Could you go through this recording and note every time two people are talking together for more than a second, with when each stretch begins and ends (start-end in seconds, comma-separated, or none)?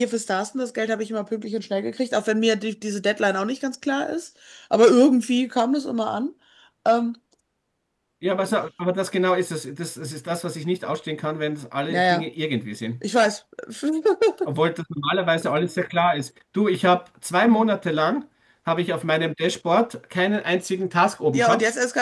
none